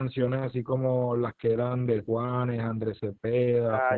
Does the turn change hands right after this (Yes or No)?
Yes